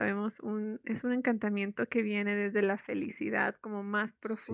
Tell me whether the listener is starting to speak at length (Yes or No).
No